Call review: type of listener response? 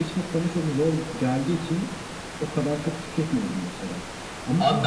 taking over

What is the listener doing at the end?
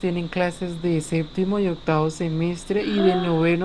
listening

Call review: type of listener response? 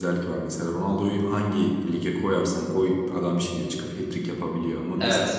taking over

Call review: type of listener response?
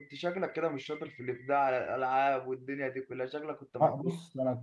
taking over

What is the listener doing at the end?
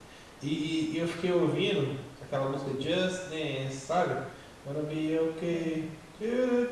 listening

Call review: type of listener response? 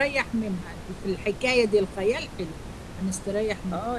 taking over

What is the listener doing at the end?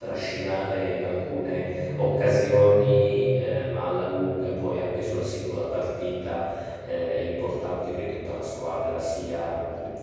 listening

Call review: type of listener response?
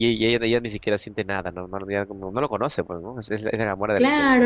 taking over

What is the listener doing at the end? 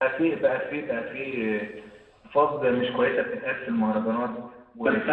taking over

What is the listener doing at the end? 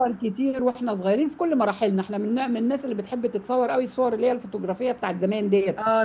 taking over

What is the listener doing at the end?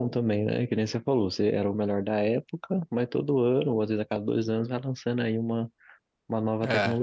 taking over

